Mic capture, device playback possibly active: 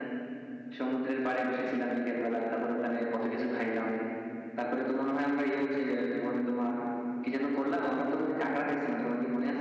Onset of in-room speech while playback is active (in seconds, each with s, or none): none